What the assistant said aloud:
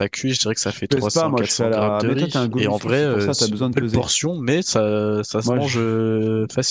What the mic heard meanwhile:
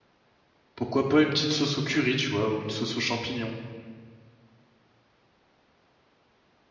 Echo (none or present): none